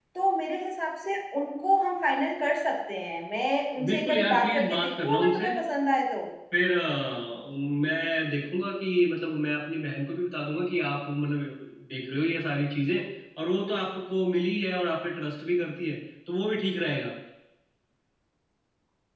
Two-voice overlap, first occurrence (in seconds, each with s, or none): 3.8 s